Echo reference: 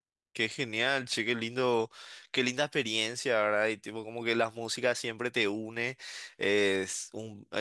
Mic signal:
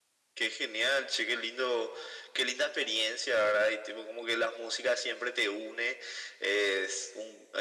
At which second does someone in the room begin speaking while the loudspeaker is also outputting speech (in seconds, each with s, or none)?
none